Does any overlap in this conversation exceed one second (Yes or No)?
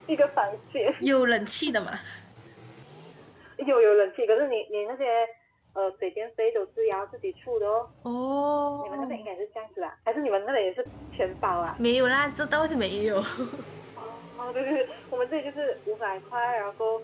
No